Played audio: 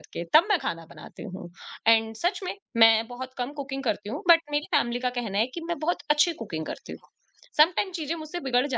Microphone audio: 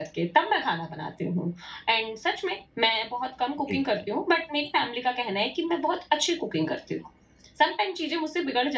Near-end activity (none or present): present